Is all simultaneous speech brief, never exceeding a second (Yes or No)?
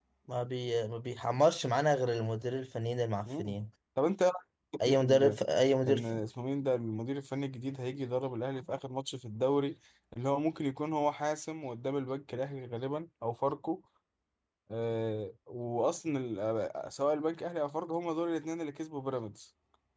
Yes